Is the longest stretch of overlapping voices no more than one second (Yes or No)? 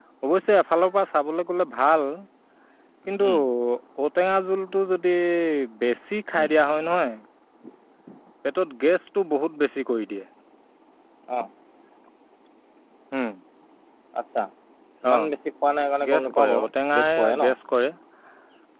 No